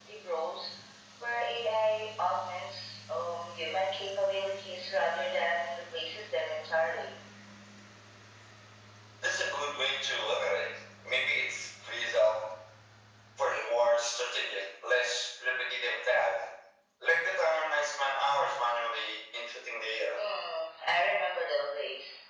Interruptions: none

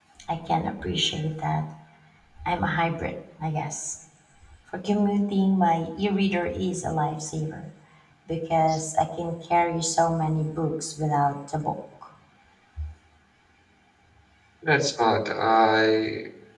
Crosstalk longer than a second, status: none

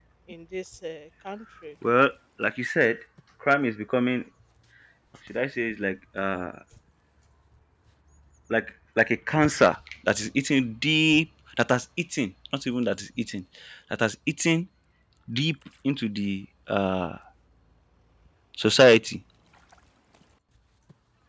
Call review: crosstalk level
none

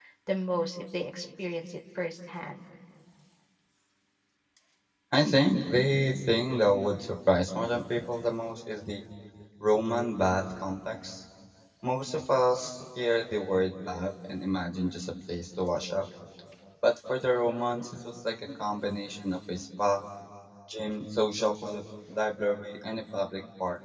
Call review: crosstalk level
none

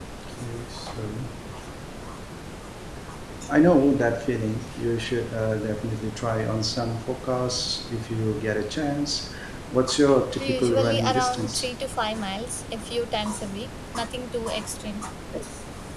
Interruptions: present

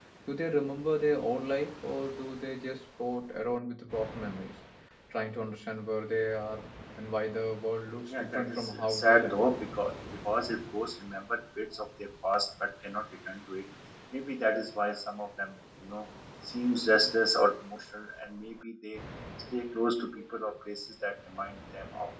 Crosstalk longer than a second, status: present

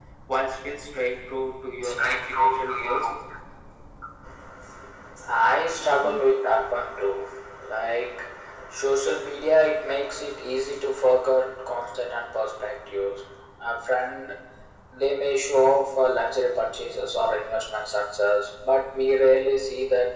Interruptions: present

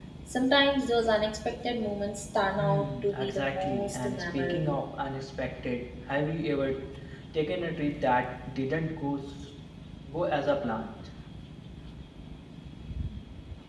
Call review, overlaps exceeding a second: present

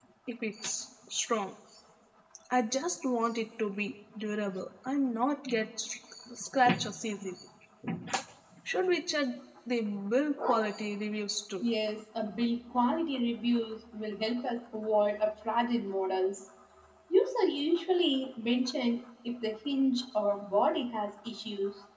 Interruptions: none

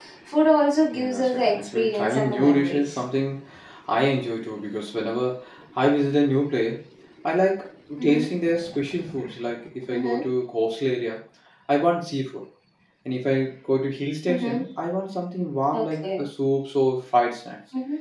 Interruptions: present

